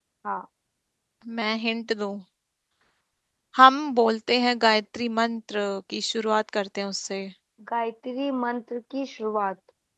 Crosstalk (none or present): none